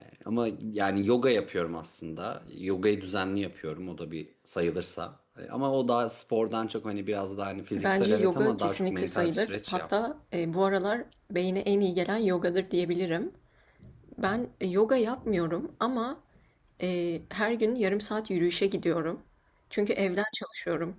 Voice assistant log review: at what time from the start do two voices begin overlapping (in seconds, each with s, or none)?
7.8 s